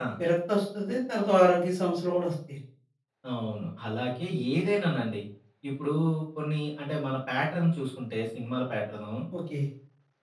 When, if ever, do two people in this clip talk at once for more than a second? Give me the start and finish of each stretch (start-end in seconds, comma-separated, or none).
none